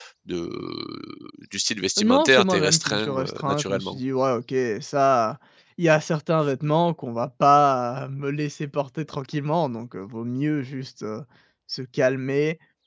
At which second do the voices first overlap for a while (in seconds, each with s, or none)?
2.0 s